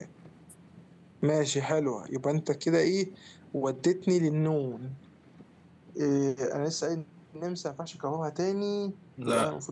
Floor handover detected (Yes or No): No